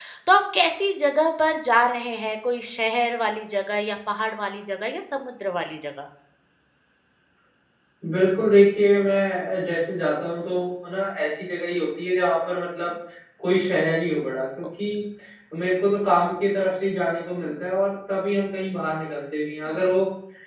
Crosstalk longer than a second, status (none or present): none